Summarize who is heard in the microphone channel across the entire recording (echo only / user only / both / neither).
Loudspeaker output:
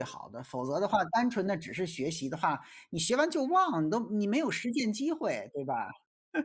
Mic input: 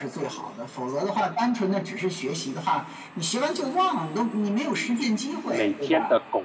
both